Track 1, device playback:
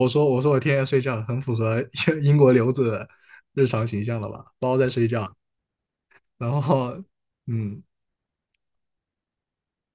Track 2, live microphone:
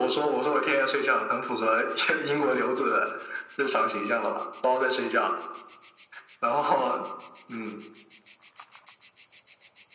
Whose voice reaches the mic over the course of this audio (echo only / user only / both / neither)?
echo only